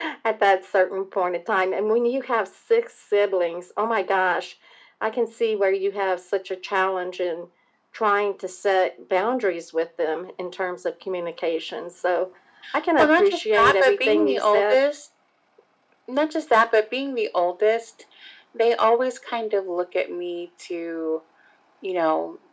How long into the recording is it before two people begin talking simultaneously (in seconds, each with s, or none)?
13.0 s